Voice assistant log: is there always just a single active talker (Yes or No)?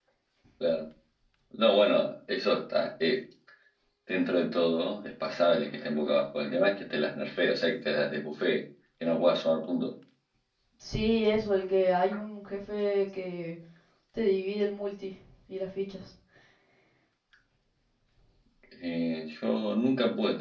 Yes